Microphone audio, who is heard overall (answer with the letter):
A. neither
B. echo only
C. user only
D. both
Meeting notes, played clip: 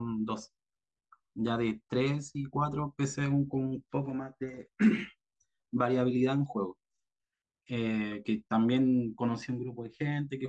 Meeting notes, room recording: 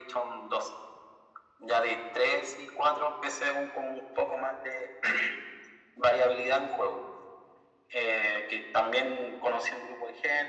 B